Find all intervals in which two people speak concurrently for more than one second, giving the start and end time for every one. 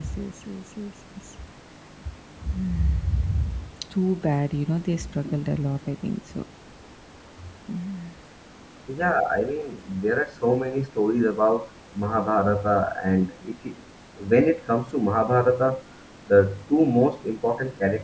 none

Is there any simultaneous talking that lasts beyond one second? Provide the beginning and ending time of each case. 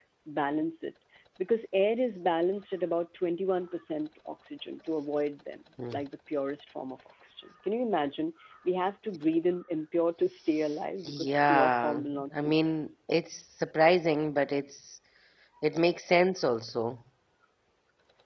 11.0-12.9

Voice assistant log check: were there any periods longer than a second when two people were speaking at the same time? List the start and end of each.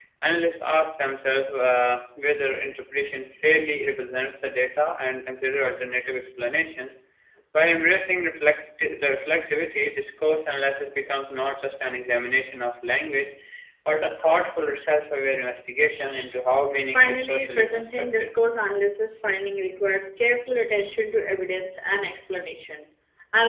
16.9-18.3

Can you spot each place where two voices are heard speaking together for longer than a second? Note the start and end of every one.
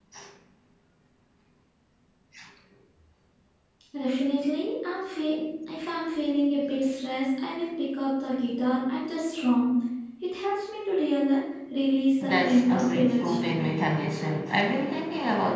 12.2-13.6

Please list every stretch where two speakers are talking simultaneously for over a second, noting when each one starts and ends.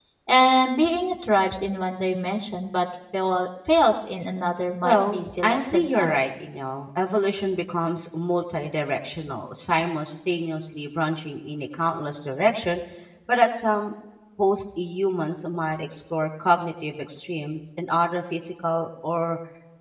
4.8-6.2

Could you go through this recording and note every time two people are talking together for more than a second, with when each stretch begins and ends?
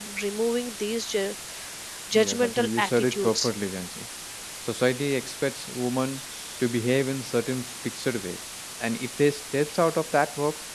2.2-3.5

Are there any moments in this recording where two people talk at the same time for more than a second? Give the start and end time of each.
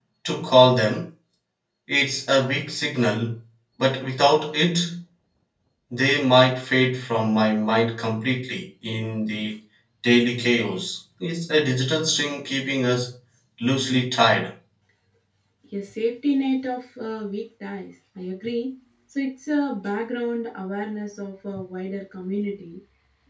none

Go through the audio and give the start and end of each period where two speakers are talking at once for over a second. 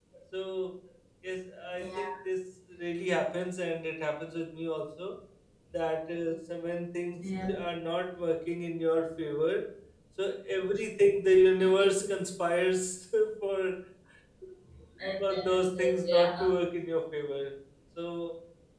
15.3-16.5

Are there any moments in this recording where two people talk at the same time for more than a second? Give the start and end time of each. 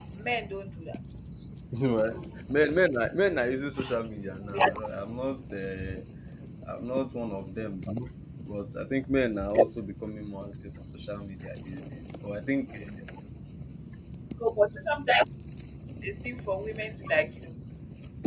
none

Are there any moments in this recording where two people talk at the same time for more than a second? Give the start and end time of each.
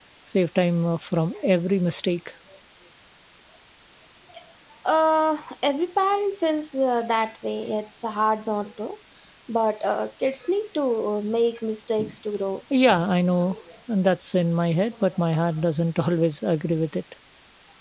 none

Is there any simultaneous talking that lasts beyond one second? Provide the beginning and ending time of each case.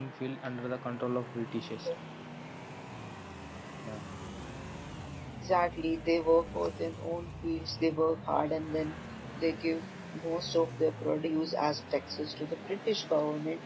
none

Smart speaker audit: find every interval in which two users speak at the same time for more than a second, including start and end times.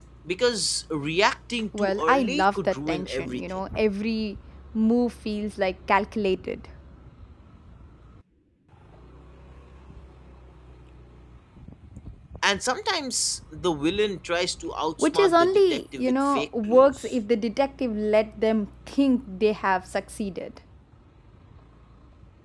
1.8-3.4, 15.0-17.1

